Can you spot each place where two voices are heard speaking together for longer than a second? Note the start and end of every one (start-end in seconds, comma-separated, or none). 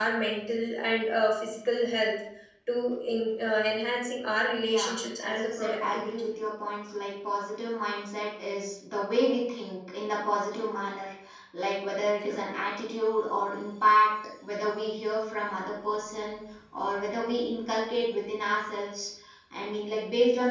4.7-6.3